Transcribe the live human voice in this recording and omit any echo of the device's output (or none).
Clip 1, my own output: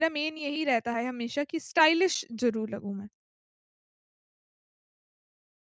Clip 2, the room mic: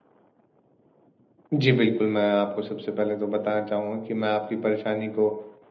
जी, बिल्कुल, मैं आपको सबसे पहले तो बताना चाहूँगा कि मैं आपकी परेशानी को